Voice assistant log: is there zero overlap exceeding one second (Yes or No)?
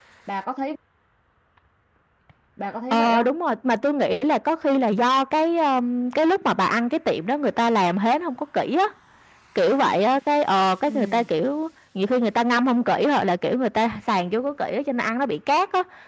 Yes